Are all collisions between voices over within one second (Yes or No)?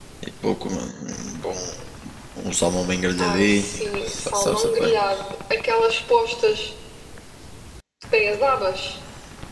No